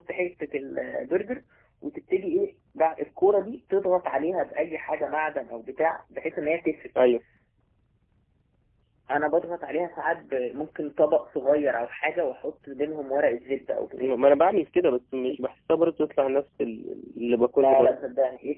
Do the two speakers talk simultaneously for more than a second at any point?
No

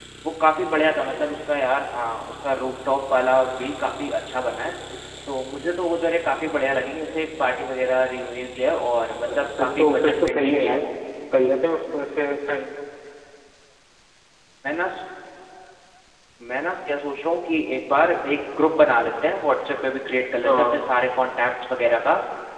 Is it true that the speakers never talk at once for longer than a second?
No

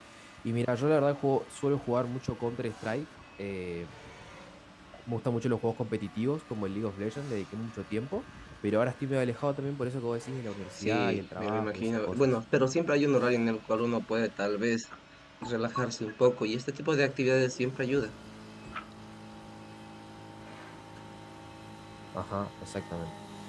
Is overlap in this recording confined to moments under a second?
No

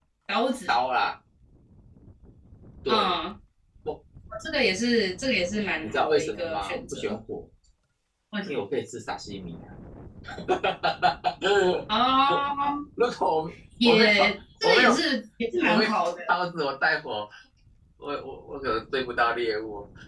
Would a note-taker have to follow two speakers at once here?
Yes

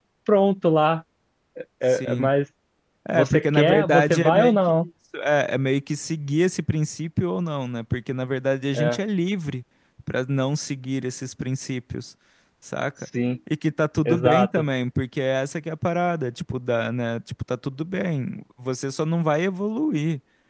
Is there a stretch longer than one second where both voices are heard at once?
Yes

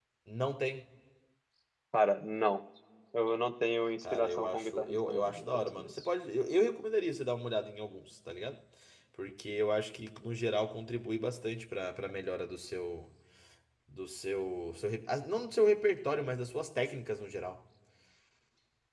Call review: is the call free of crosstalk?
No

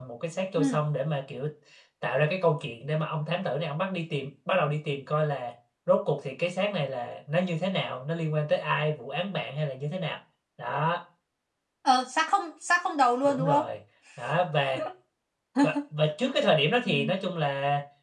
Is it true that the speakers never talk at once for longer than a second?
Yes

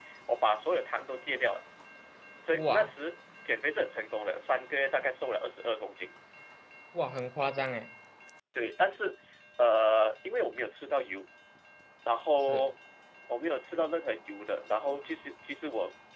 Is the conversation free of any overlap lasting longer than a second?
Yes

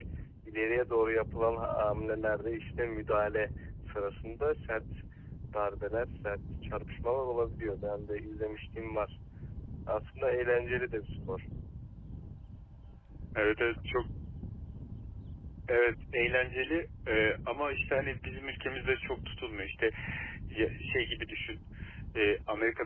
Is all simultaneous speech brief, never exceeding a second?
Yes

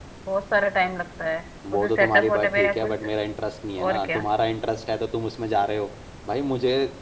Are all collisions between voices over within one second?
No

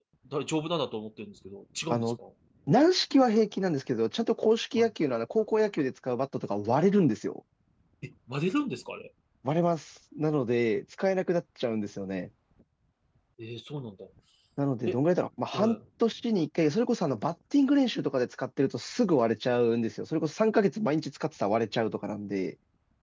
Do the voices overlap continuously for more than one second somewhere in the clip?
No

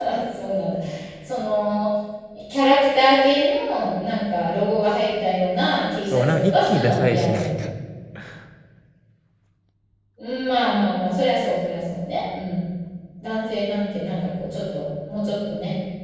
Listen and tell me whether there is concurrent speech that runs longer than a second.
Yes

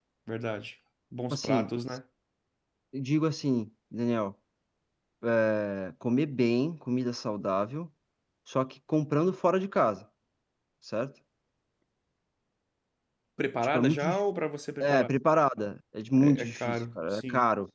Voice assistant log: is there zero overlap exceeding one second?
No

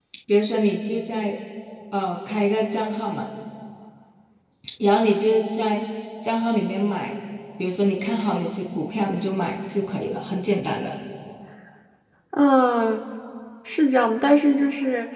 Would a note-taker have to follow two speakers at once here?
No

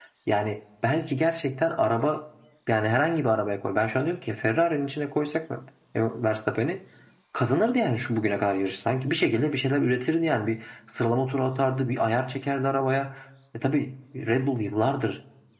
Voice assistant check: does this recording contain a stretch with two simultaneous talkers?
No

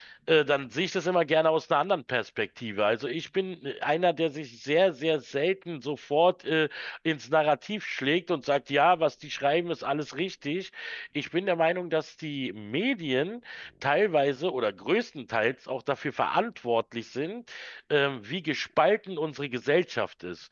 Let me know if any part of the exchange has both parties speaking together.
No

